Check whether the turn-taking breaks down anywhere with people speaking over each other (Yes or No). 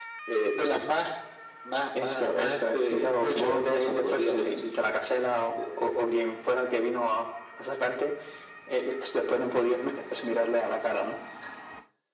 Yes